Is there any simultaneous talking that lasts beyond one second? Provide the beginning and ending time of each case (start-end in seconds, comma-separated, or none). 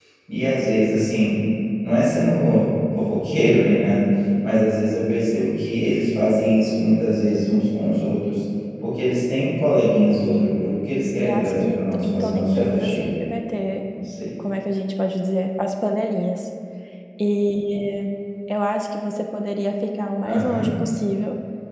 11.2-13.1